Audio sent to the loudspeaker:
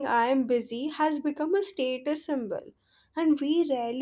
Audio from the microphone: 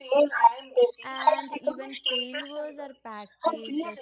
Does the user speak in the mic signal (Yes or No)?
Yes